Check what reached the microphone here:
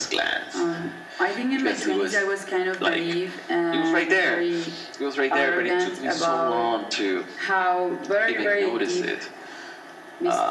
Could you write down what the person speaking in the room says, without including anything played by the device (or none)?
none